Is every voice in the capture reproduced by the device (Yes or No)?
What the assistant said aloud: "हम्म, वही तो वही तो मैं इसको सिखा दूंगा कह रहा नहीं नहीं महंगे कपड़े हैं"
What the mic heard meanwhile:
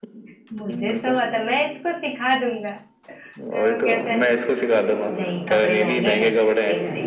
No